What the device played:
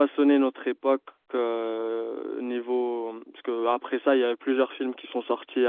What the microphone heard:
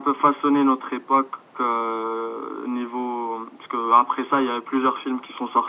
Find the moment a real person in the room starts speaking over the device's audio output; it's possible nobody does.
none

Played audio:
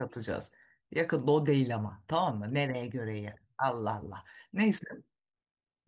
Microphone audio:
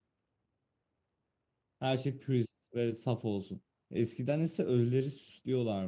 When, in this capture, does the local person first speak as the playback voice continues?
1.8 s

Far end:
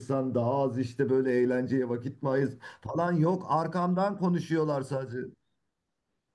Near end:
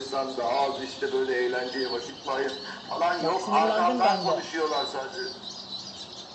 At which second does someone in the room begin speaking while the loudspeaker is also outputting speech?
3.2 s

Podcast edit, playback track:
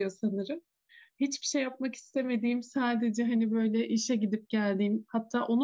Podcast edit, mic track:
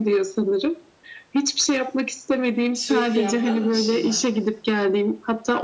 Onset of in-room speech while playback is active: 2.7 s

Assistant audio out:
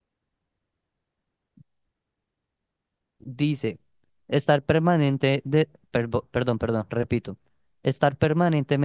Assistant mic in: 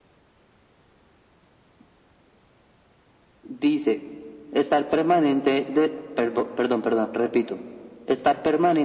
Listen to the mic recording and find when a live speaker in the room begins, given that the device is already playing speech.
none

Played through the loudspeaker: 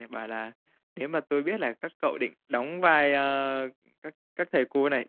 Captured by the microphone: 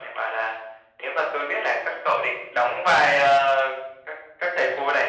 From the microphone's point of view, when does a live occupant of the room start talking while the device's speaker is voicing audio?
none

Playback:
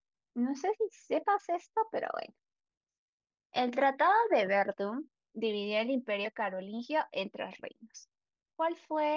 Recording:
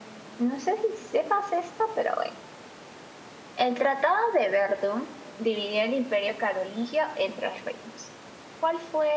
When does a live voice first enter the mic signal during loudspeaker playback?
none

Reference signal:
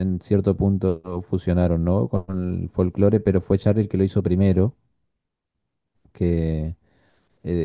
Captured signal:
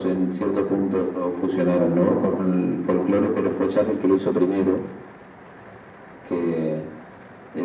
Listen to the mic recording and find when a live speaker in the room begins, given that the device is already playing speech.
none

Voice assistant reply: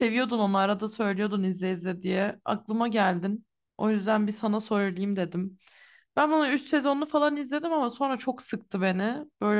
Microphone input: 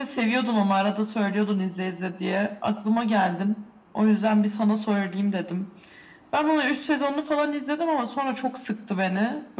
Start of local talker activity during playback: none

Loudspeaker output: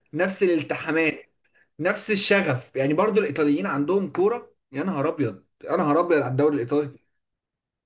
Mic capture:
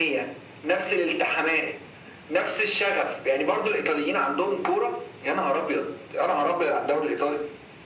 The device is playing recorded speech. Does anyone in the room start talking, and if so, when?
none

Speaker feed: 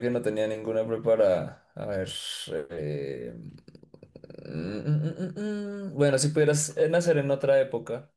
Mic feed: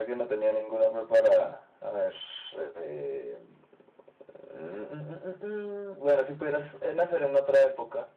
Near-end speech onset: none

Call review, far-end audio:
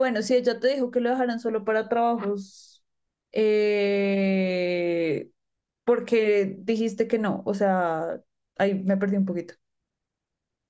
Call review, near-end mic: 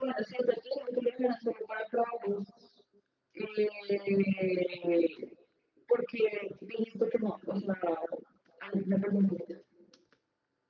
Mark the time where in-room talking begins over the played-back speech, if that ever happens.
none

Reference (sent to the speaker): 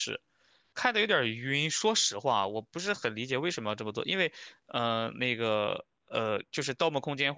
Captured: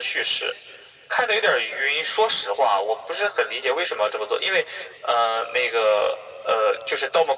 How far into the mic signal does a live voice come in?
none

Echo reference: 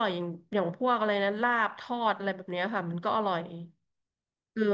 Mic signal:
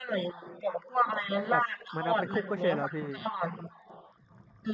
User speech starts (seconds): 1.5 s

